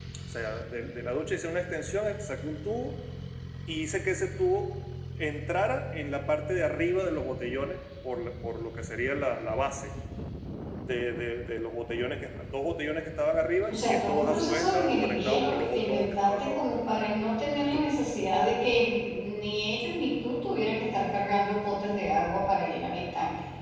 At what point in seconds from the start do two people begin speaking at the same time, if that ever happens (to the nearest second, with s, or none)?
14 s